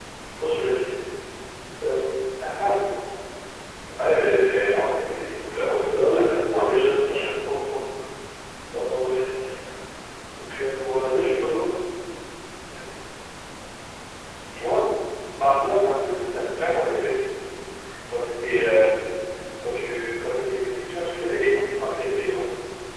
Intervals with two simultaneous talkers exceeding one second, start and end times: 5.9-7.3

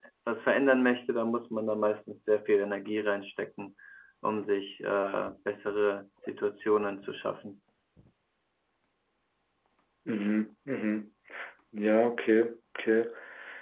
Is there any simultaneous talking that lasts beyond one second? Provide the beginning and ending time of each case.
none

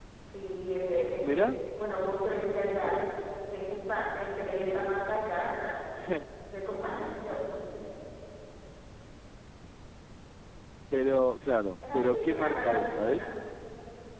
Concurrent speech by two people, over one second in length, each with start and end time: 11.9-13.3

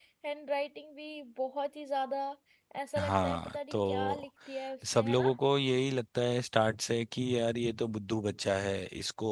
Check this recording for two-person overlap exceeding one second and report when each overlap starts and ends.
3.0-4.2

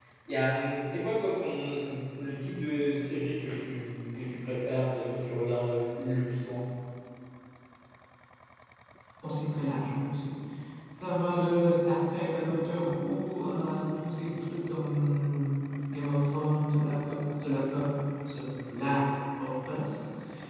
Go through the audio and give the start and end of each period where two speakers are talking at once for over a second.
none

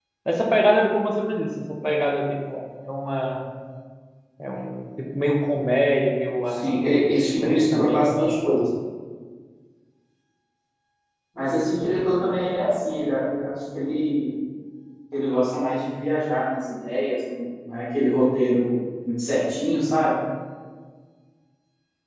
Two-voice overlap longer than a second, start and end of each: 6.5-8.1

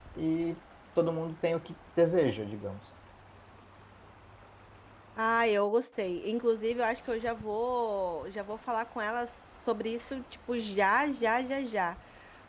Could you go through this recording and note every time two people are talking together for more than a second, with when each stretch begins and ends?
none

